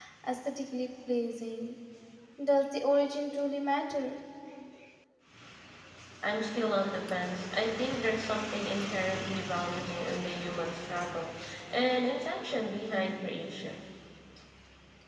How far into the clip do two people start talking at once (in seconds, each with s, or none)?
none